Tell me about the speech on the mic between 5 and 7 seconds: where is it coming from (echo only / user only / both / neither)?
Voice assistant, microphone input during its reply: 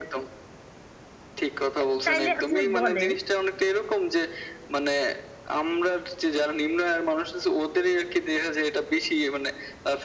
echo only